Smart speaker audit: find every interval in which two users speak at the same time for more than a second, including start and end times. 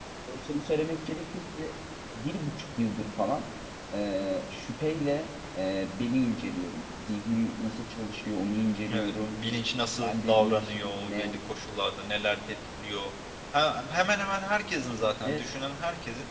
10.0-11.4

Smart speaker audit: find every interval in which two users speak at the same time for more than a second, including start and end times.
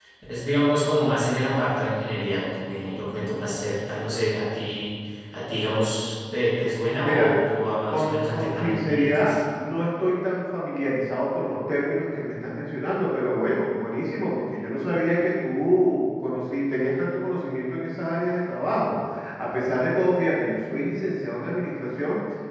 7.9-9.3

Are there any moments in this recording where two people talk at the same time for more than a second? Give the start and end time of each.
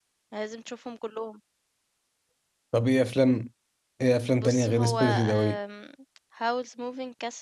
4.3-5.6

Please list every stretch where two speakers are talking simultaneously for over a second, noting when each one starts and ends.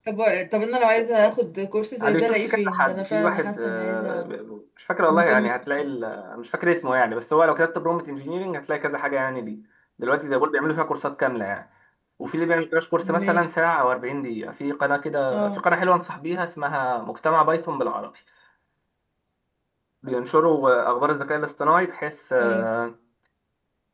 2.0-4.3

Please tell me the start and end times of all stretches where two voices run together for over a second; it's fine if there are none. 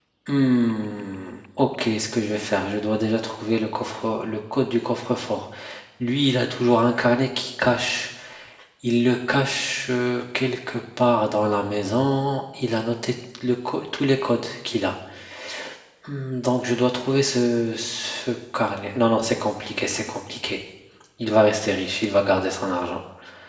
none

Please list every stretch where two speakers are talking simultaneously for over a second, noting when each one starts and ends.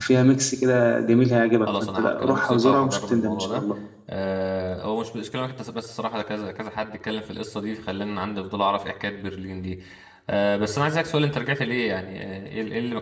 1.7-3.6

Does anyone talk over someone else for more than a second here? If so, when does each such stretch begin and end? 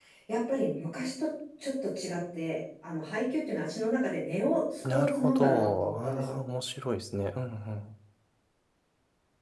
4.9-6.4

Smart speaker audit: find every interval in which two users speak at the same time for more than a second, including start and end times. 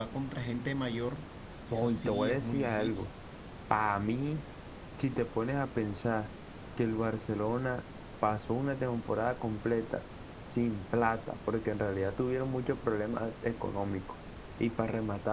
1.7-3.1

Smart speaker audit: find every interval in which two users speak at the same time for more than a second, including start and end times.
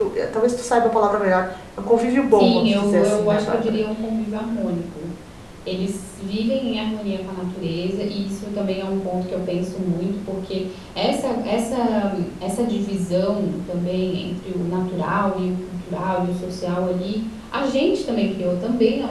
2.3-3.8

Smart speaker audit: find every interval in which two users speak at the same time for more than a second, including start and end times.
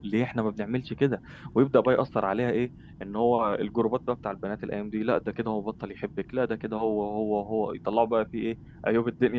none

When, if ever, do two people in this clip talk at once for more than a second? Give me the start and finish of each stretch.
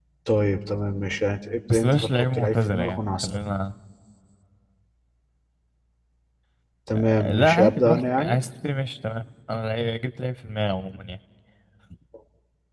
1.7-3.3, 7.0-8.4

